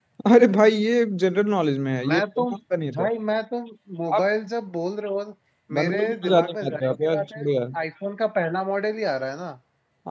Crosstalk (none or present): present